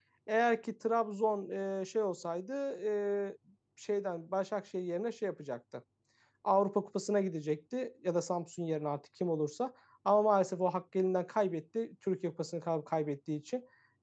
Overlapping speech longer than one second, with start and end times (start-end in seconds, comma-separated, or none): none